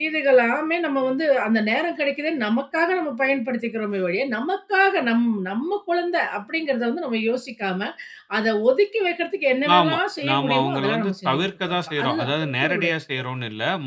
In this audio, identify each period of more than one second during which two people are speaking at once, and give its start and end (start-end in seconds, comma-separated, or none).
9.8-12.9